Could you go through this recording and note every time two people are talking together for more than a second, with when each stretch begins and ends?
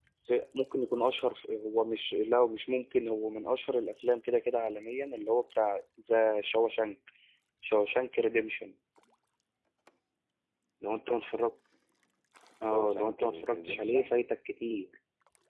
12.7-14.1

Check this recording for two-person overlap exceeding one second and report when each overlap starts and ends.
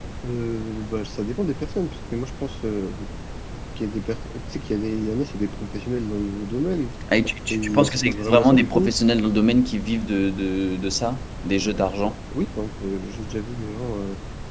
7.5-8.9

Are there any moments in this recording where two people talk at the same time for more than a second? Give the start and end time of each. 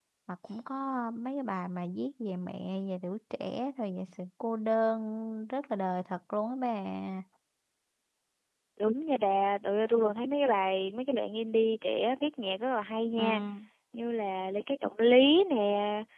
none

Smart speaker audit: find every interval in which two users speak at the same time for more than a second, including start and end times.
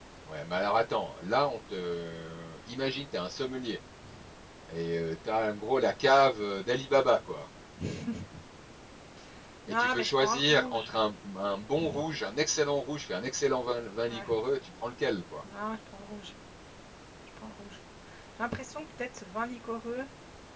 9.7-10.9

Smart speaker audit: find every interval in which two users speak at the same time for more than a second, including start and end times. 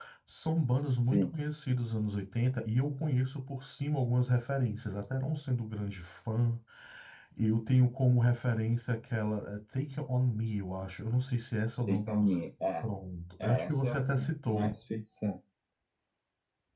13.4-14.7

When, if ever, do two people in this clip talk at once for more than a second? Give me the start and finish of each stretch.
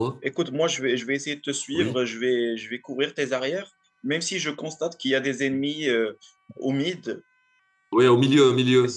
none

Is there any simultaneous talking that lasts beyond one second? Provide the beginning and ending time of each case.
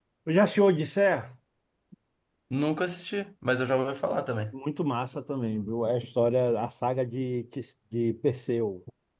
none

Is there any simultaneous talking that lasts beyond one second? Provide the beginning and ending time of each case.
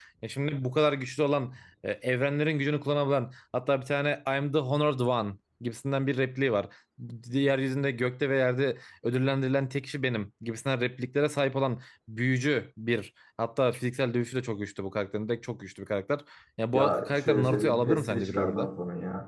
16.7-18.7

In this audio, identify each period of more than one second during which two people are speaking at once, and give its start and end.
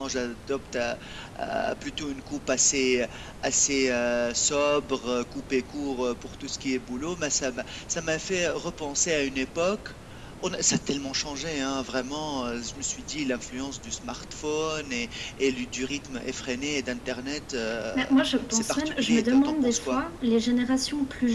18.5-20.0

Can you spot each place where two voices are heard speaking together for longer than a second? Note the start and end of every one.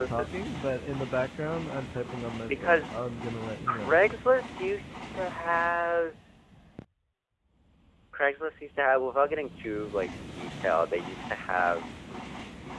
none

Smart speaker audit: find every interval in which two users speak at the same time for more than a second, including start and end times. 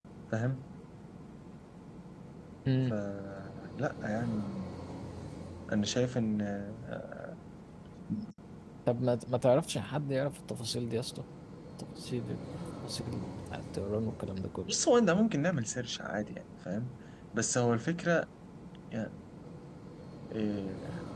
none

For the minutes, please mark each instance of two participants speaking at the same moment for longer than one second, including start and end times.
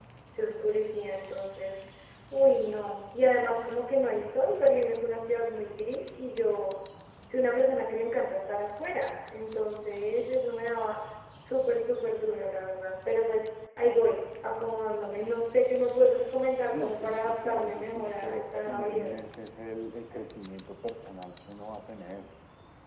16.7-19.1

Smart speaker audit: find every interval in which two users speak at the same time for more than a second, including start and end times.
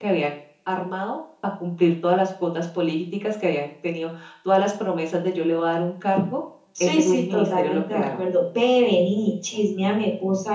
6.8-8.2

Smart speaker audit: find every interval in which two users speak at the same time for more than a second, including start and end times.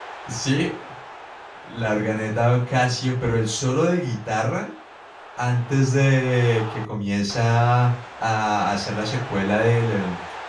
none

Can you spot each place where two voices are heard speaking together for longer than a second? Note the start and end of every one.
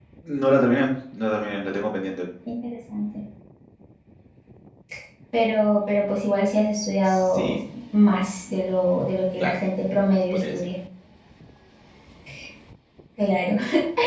none

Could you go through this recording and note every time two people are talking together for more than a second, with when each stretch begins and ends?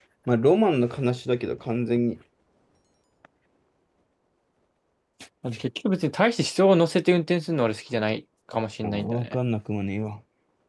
none

